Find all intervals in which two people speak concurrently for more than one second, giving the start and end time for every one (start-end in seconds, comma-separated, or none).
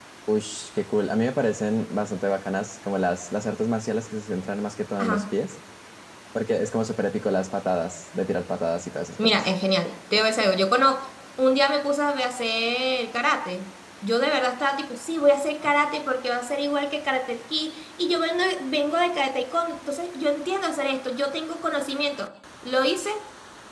none